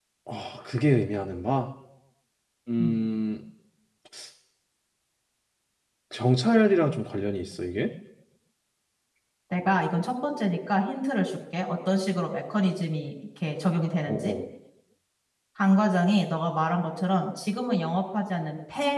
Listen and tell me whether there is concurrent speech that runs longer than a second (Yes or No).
No